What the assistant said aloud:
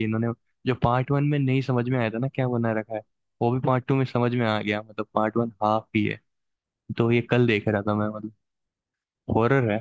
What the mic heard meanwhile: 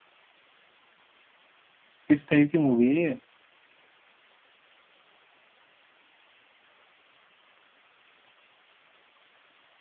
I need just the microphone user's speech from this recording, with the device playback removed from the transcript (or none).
किस टाइप की मूवी है ये